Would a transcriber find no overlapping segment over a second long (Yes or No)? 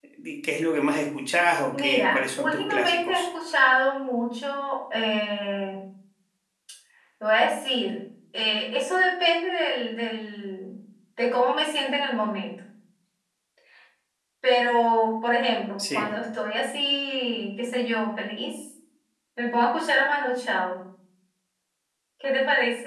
No